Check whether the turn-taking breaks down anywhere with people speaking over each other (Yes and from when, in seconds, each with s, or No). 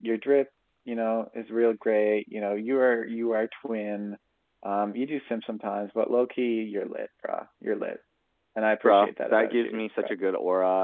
Yes, from 8.8 s